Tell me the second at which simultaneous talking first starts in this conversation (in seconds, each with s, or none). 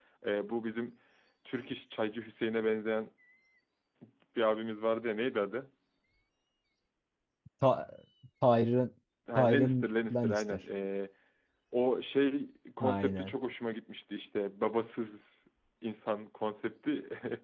9.4 s